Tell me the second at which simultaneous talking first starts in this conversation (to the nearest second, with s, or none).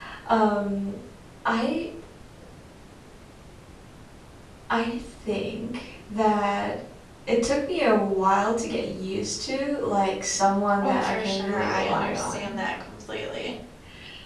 11 s